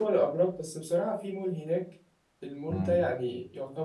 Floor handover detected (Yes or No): No